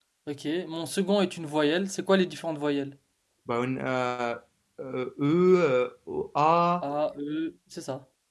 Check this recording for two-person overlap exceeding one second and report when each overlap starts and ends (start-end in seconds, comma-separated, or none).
none